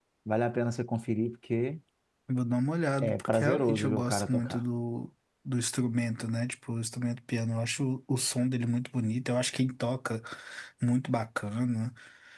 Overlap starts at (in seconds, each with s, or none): 3.0 s